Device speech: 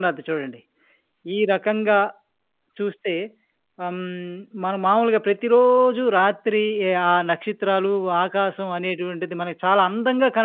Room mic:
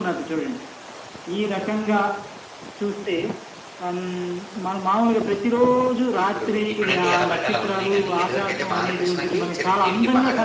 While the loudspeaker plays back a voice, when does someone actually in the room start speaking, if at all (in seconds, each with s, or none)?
6.2 s